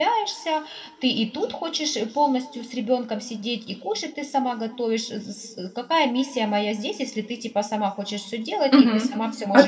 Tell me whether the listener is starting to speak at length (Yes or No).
Yes